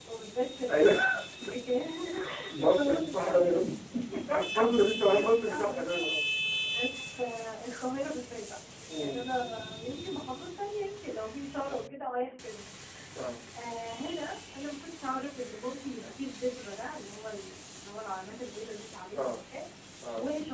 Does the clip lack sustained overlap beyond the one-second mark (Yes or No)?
No